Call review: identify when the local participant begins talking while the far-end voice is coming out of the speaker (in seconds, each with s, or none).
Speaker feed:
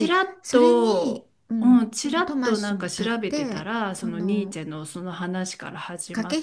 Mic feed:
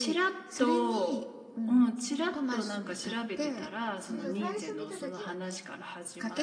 4.0 s